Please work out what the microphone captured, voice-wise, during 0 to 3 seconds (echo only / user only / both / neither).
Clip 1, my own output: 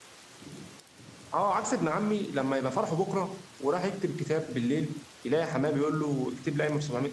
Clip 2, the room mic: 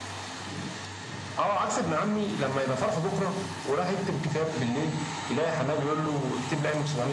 echo only